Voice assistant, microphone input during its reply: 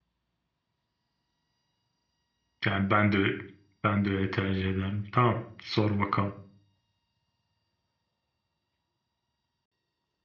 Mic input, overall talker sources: user only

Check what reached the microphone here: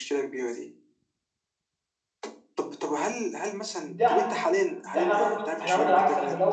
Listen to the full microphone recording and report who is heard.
both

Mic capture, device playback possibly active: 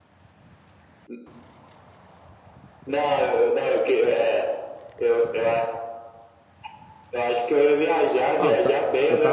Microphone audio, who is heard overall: both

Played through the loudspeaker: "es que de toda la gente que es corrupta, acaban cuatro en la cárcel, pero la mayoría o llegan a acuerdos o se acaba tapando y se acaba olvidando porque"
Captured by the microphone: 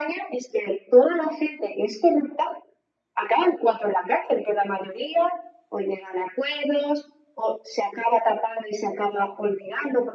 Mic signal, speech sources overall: echo only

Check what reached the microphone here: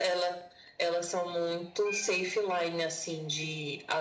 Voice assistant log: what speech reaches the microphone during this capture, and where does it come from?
echo only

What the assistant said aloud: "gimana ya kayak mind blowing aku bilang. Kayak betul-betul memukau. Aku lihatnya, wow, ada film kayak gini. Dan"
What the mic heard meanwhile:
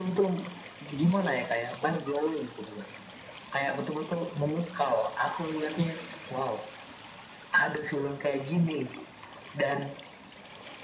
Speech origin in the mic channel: echo only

